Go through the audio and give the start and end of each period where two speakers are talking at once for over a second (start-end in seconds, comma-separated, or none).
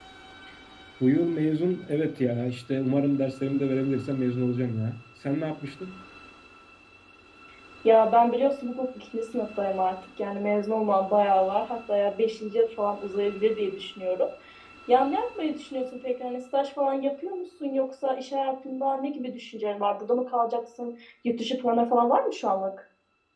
none